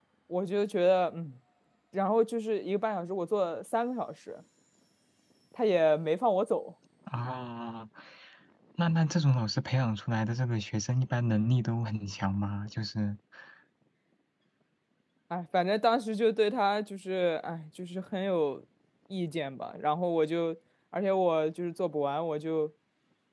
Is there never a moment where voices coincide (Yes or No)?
Yes